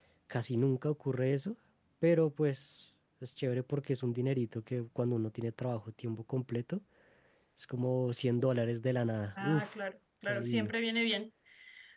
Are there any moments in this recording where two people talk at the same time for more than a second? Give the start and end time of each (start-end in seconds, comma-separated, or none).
none